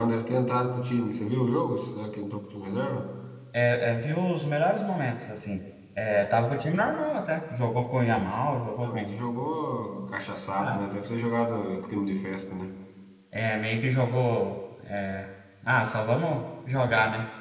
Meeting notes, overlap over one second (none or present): none